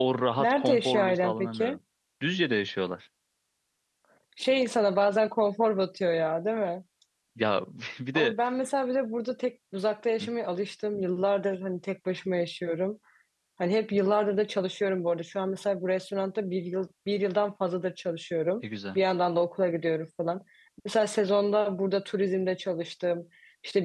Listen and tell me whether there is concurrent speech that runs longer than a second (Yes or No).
Yes